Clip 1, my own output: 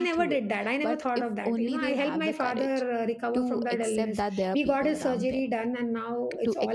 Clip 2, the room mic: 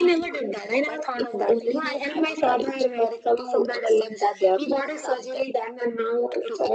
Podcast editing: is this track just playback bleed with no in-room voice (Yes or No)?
Yes